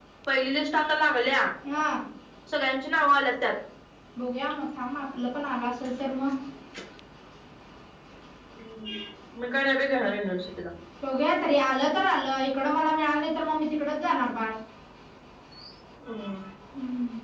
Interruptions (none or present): none